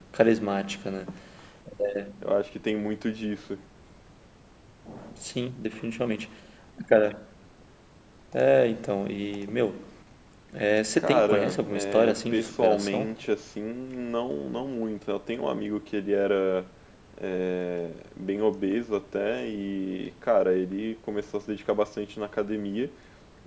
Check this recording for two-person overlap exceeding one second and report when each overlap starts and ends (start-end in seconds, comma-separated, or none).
11.0-13.1